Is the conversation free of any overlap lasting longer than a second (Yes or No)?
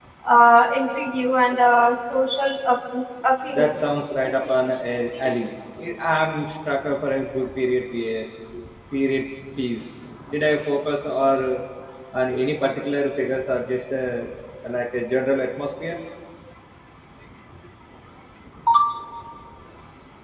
Yes